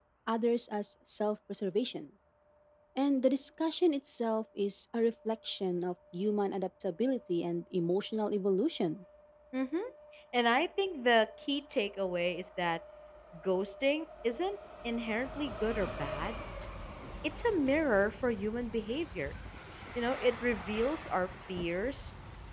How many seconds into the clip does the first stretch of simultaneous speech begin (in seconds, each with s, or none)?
none